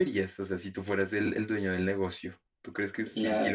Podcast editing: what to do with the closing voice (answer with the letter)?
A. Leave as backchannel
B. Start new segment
A